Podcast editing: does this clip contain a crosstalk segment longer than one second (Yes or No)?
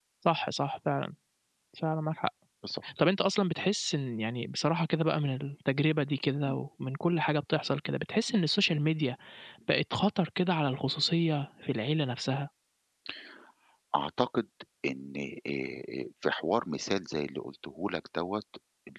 No